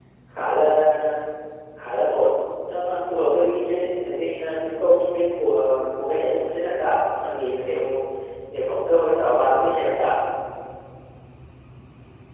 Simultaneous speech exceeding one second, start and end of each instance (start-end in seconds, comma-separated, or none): none